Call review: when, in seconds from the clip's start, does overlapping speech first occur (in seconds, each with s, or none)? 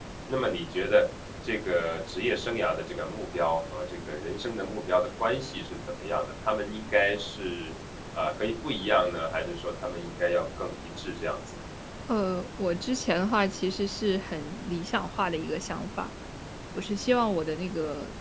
none